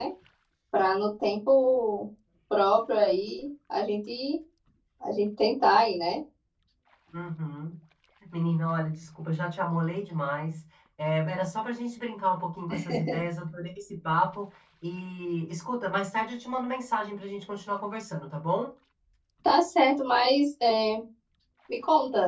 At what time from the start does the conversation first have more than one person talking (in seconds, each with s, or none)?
none